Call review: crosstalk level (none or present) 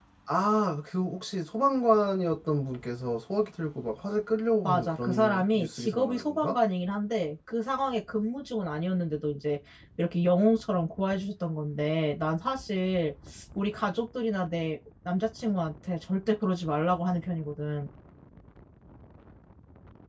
present